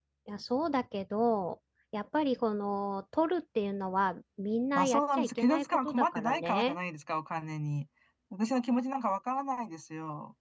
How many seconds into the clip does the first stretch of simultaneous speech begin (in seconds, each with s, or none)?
4.8 s